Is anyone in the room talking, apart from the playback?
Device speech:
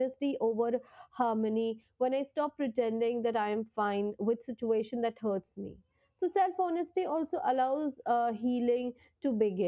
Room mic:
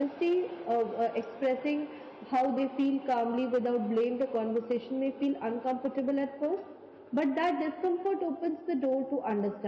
Yes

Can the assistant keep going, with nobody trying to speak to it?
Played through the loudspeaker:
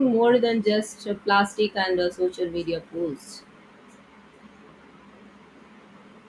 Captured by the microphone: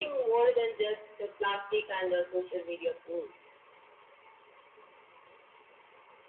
Yes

